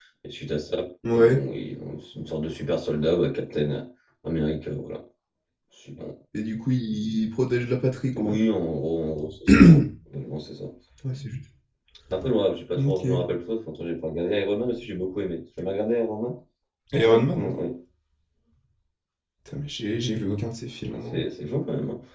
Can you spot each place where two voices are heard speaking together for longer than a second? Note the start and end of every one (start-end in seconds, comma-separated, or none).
none